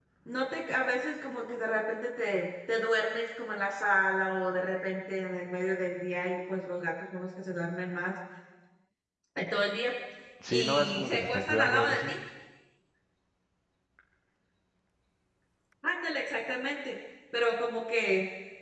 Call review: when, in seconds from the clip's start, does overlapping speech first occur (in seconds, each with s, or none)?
10.5 s